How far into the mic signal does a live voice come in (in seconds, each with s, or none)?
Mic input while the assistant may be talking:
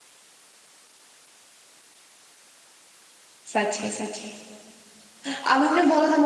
3.5 s